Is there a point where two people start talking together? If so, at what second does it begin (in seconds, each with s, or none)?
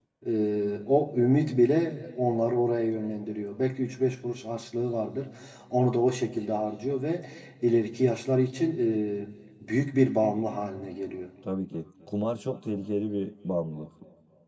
none